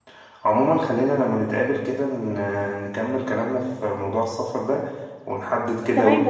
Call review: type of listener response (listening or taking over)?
taking over